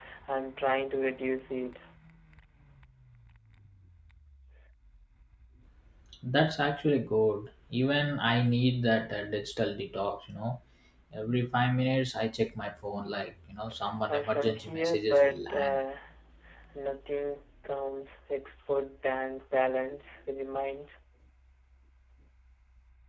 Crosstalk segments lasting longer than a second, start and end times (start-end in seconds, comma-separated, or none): 14.1-15.8